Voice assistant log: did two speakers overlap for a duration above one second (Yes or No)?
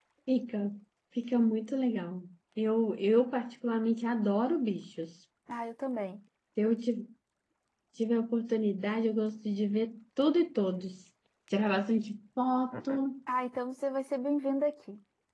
No